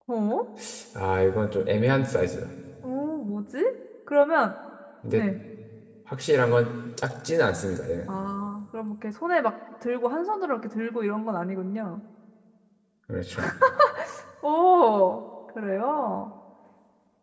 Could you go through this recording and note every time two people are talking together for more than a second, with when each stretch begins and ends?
none

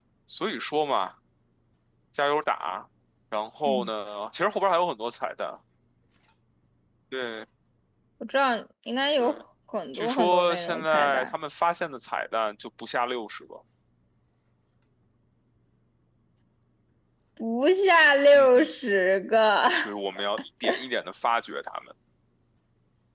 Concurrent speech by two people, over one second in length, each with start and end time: 9.9-11.2

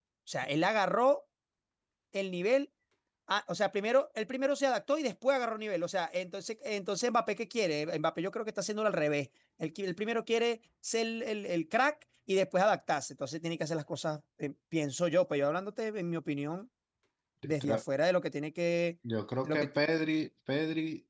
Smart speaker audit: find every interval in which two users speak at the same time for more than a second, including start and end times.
none

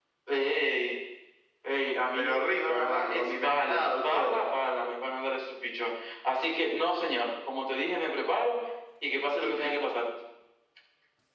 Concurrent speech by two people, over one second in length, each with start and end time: 2.1-4.4

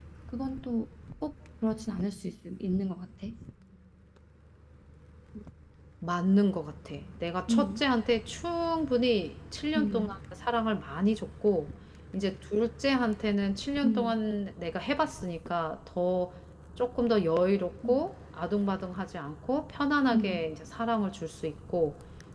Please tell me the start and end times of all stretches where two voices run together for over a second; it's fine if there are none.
none

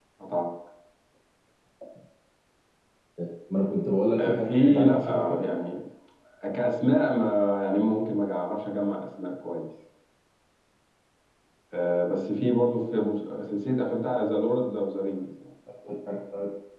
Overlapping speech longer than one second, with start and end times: 4.2-5.5

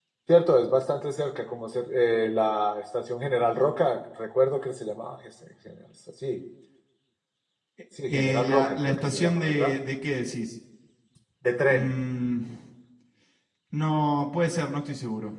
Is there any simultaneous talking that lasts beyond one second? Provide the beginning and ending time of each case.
8.1-9.8

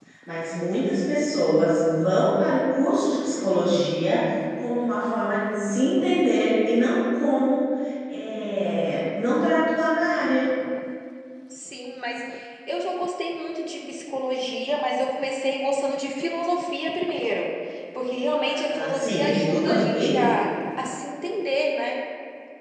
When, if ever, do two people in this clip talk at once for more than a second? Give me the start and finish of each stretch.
18.4-20.2

